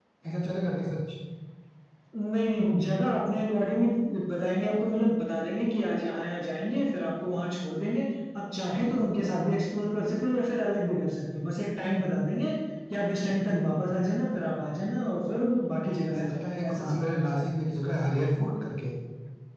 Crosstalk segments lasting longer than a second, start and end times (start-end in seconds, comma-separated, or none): 16.1-17.5